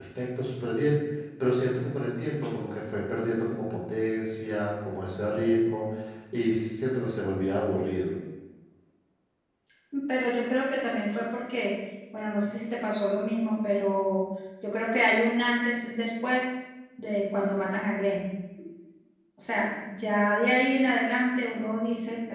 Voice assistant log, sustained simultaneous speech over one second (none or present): none